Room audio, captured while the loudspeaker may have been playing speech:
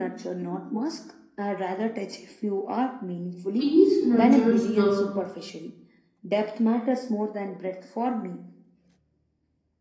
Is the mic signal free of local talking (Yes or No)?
No